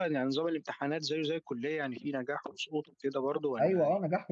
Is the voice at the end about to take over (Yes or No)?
Yes